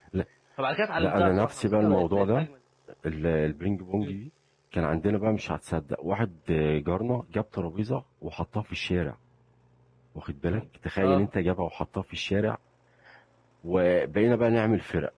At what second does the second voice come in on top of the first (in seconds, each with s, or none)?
1.0 s